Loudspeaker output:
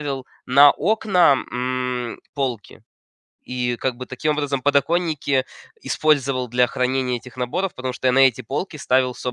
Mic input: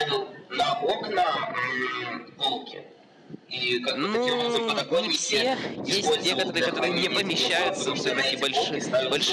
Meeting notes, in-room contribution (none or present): present